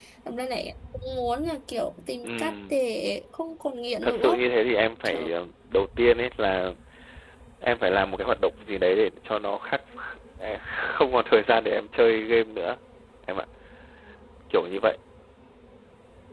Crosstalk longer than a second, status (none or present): none